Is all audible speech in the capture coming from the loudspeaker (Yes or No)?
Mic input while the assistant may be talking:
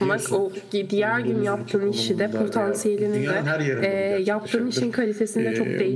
Yes